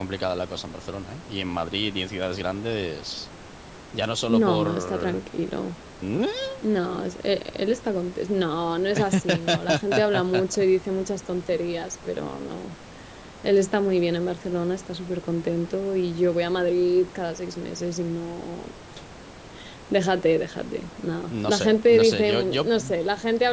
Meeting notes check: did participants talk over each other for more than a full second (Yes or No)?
Yes